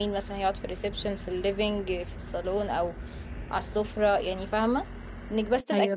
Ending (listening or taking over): listening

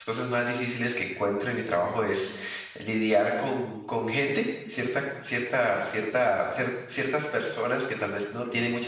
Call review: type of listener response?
listening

